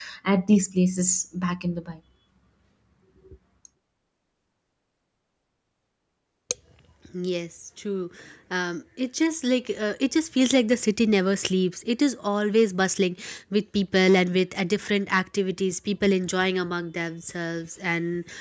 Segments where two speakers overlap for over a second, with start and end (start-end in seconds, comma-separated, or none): none